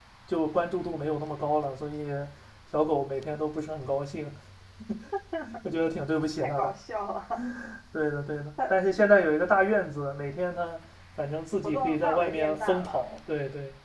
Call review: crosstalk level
present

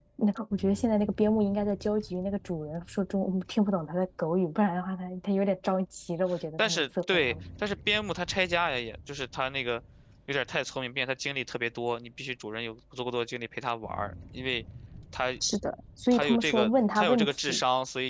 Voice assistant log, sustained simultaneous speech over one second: present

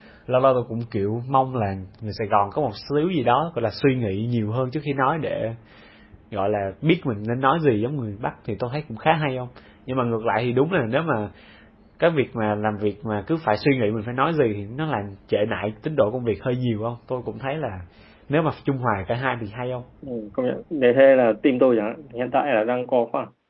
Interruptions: none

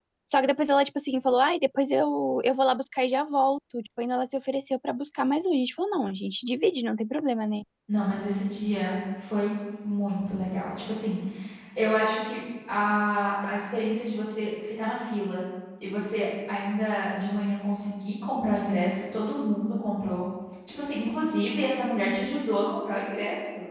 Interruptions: none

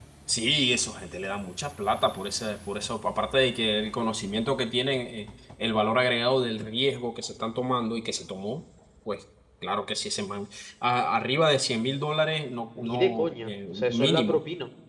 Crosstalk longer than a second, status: present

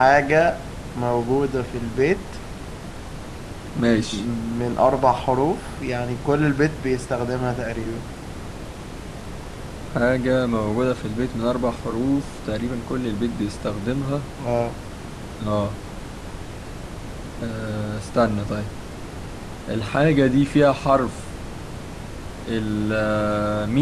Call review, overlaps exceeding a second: none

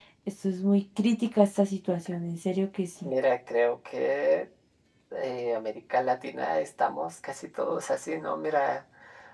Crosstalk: none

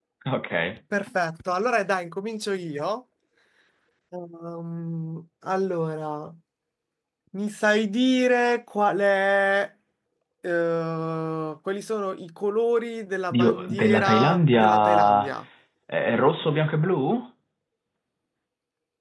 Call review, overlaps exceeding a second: present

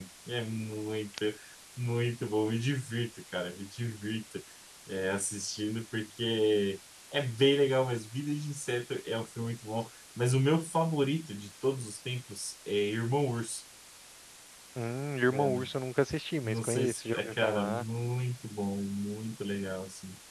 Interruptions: present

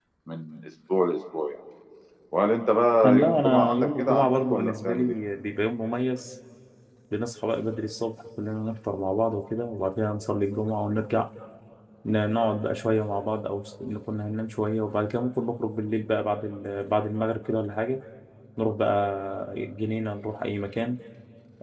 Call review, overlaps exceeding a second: present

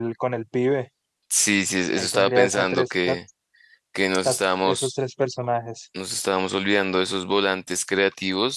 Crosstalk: present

